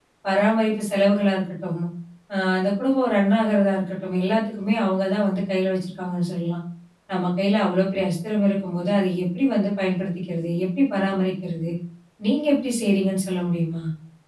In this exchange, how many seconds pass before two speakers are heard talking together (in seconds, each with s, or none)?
none